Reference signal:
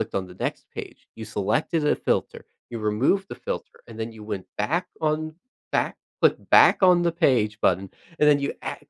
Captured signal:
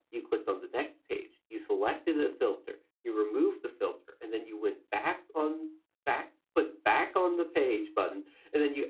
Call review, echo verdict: present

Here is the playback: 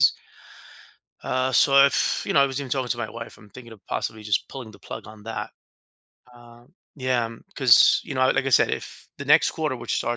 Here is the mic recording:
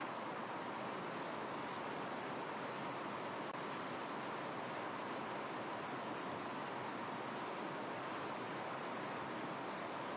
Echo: none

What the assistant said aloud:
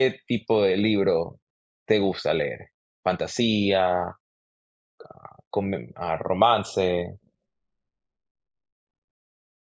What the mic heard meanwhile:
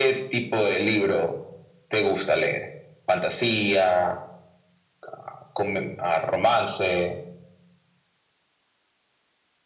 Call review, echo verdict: present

